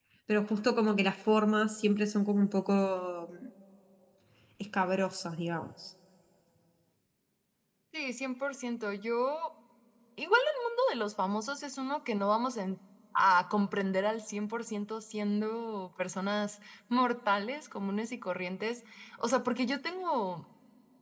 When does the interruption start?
none

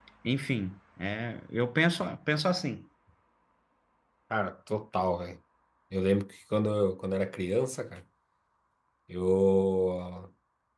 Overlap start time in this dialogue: none

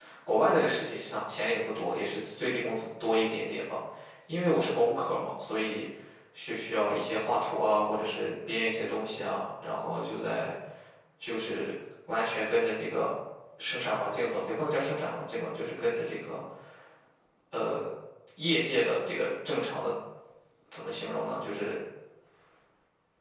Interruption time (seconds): none

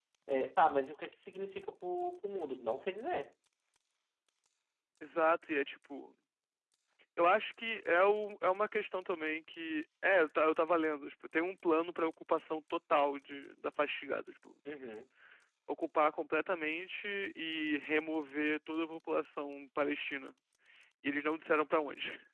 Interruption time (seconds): none

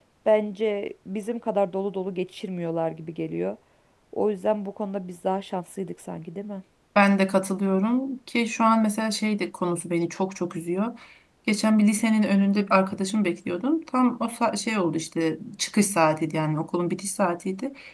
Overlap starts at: none

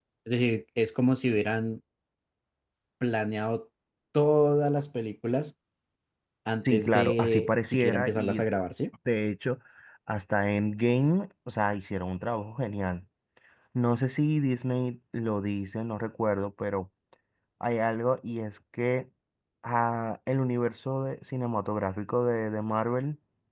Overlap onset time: 6.7 s

